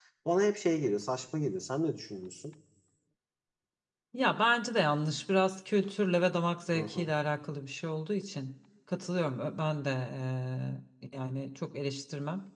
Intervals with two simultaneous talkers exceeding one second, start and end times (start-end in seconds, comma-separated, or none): none